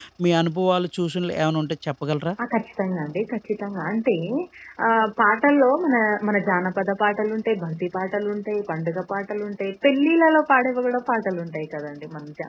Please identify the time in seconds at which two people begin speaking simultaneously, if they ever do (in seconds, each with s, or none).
none